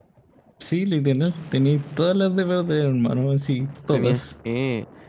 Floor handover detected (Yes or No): Yes